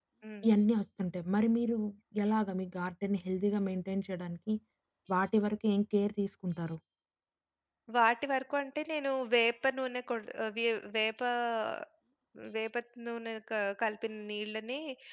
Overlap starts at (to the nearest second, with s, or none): none